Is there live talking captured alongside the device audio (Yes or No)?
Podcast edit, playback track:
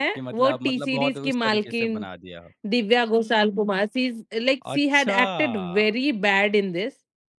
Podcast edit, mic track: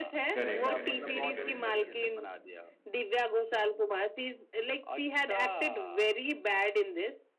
Yes